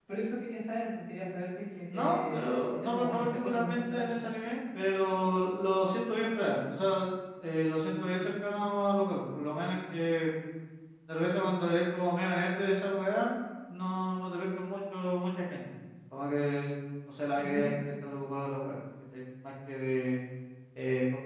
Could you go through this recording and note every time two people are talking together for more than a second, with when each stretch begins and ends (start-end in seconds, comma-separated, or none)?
1.9-4.2